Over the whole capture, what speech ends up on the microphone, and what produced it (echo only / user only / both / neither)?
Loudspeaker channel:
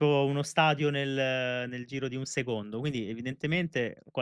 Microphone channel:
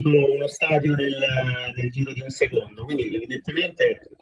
echo only